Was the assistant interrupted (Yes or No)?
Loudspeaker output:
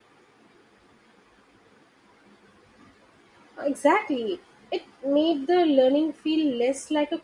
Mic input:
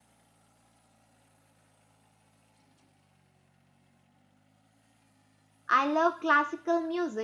Yes